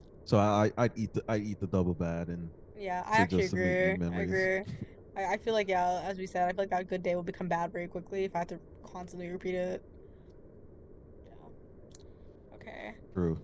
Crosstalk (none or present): present